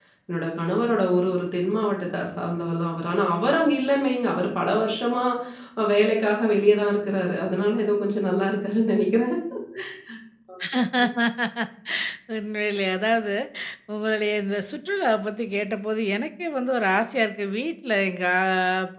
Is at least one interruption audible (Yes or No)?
No